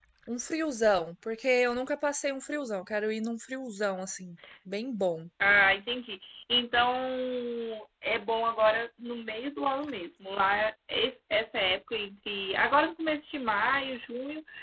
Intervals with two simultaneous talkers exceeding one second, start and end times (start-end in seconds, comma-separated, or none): none